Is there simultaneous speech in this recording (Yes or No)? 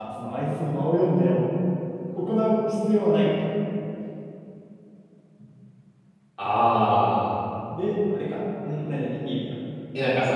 No